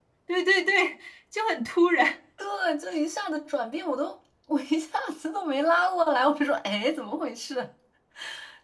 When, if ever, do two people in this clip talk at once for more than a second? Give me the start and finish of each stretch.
none

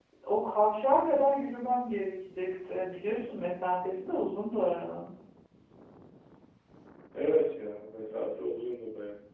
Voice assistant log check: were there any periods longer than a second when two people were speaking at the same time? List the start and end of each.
none

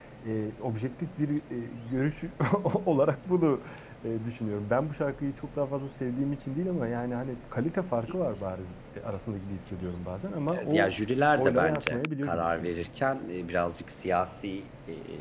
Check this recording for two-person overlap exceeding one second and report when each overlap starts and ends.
11.4-12.9

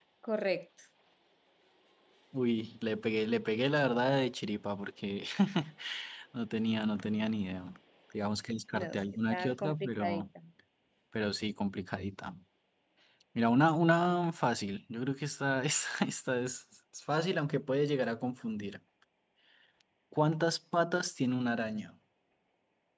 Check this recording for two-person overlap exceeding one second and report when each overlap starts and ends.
8.7-10.2

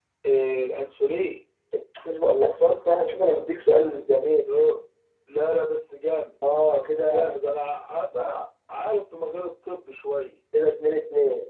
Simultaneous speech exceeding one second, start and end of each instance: none

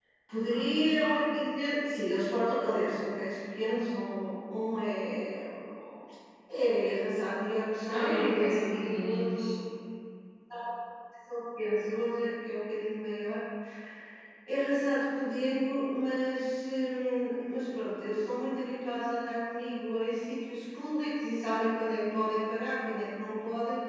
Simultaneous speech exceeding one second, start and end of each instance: 7.9-9.6

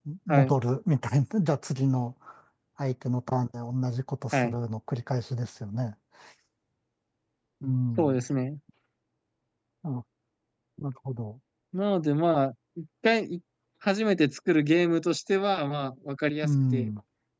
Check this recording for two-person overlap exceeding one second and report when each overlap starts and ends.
none

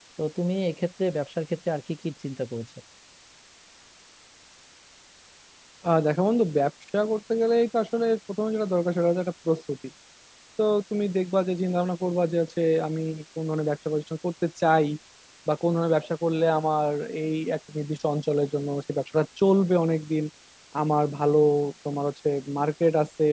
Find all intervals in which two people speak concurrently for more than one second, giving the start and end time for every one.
none

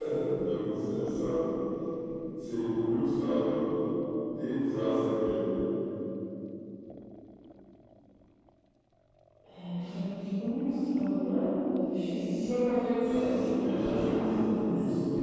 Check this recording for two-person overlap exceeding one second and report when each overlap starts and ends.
13.0-14.7

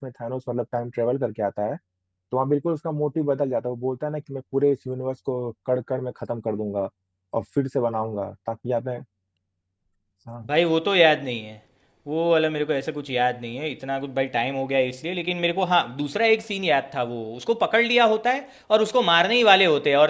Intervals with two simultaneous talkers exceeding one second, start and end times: none

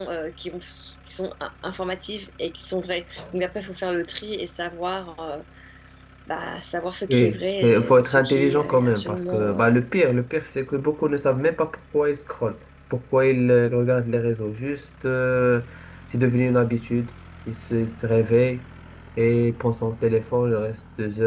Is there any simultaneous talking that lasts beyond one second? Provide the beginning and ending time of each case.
7.1-9.7

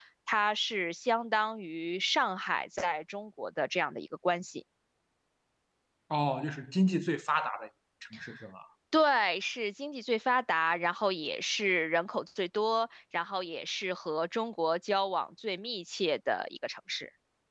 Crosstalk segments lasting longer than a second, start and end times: none

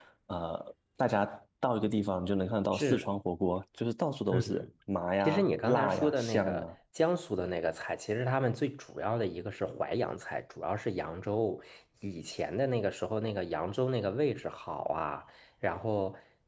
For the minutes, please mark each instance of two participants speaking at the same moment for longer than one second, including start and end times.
5.2-6.7

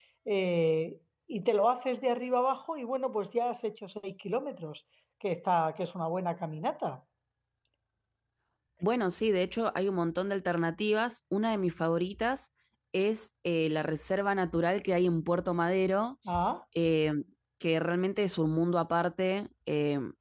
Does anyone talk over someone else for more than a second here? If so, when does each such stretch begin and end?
none

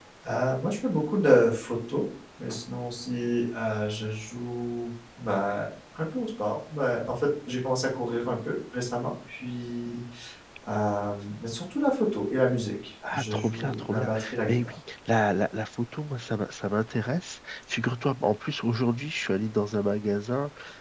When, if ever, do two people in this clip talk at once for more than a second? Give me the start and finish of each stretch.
13.1-14.7

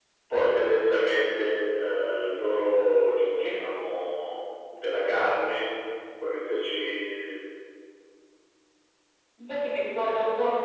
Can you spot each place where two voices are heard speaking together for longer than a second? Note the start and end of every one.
none

